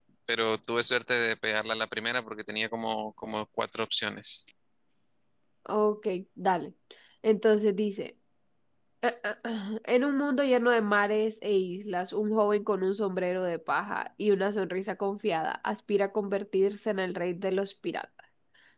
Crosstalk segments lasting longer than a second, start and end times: none

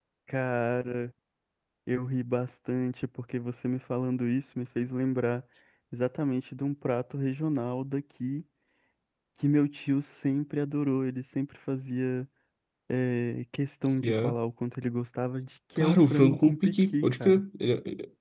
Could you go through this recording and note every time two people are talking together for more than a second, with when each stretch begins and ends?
15.8-17.4

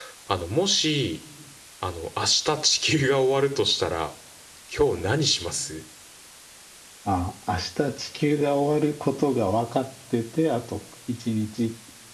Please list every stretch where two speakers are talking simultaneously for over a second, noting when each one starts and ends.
none

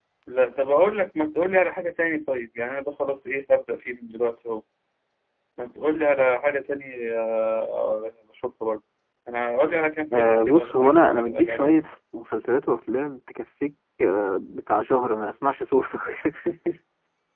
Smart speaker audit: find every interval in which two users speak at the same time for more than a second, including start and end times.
10.2-11.8

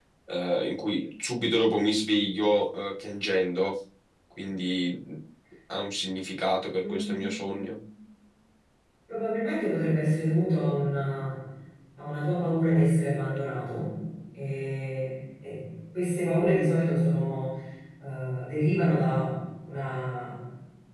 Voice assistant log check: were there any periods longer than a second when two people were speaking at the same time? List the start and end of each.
none

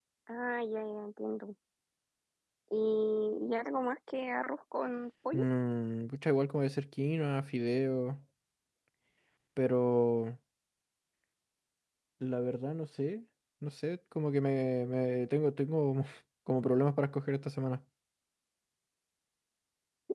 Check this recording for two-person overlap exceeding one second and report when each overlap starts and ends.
none

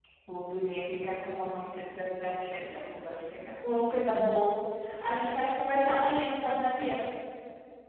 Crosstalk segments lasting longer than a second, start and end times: none

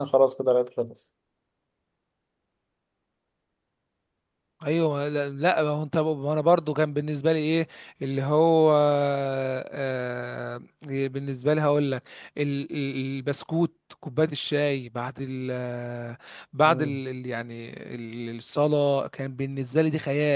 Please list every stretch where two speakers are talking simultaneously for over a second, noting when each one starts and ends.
none

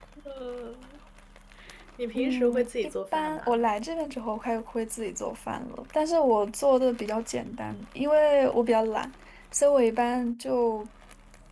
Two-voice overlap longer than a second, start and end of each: 2.1-3.7

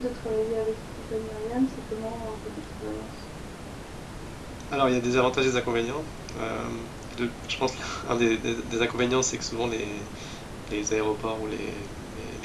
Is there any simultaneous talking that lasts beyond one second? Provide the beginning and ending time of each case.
none

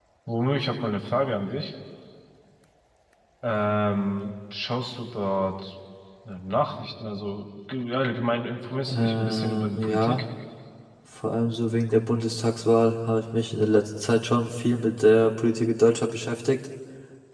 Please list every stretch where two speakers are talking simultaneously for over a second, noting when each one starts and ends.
8.9-10.2

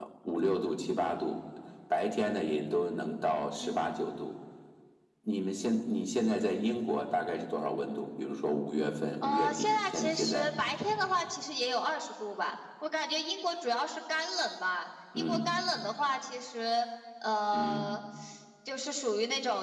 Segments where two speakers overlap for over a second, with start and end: 9.2-10.5

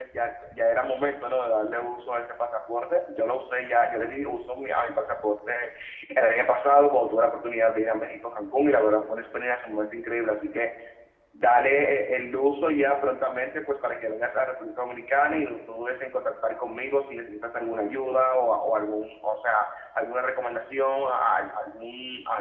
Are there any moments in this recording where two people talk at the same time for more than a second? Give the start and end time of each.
none

